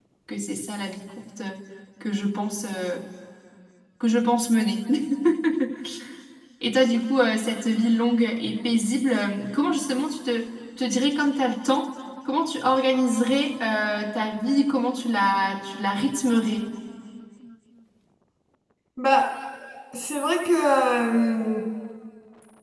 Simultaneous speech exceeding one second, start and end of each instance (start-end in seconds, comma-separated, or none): none